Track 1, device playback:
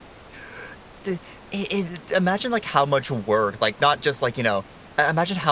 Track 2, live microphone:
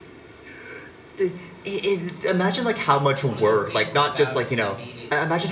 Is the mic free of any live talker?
No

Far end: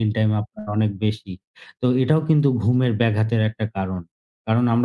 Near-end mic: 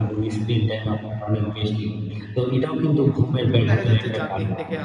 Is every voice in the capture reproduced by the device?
No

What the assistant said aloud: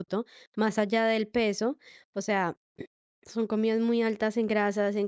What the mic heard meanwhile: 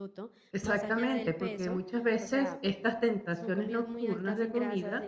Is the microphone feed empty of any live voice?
No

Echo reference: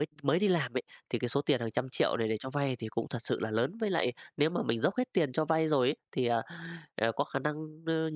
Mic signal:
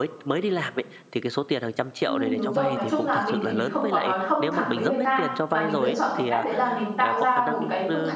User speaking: Yes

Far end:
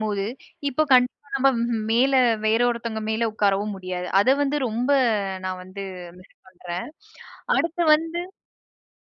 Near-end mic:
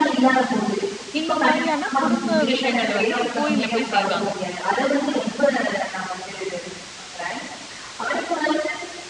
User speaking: Yes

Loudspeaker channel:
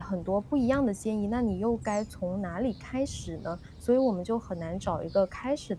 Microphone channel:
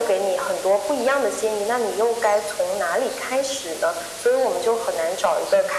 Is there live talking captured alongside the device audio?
No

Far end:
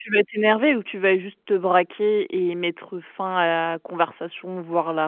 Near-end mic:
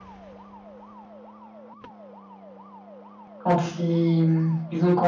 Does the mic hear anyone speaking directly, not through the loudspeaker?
Yes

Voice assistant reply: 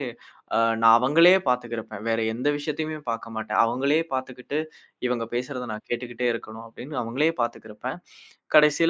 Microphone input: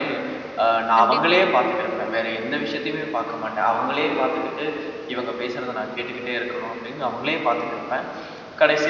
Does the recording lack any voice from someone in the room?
No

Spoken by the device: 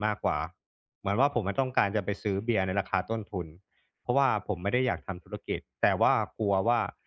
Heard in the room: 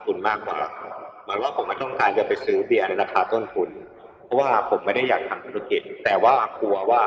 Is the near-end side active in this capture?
No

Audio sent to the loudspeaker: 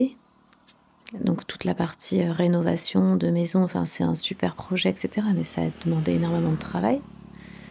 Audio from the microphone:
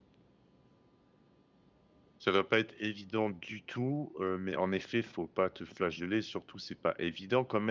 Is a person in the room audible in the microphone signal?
Yes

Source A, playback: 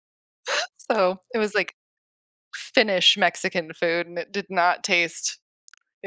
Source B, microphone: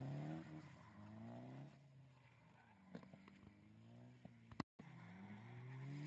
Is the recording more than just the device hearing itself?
No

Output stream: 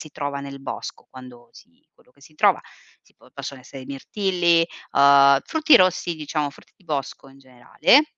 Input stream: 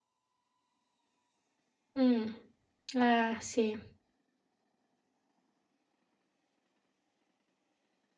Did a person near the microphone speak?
Yes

